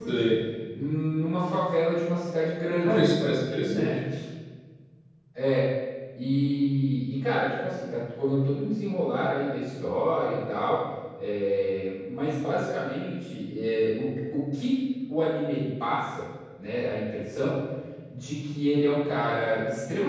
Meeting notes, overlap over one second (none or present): none